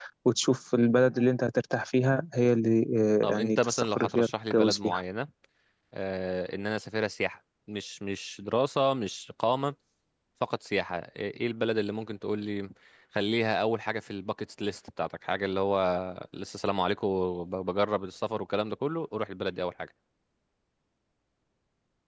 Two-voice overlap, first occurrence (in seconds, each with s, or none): 3.3 s